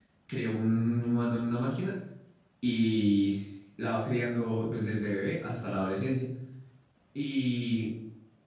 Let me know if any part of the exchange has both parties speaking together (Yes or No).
No